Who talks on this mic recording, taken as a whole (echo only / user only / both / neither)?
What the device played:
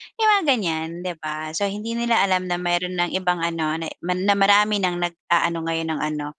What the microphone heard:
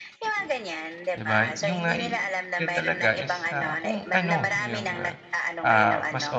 both